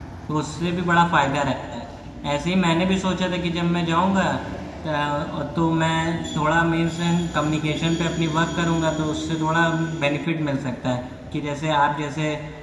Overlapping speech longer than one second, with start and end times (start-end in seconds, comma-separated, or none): none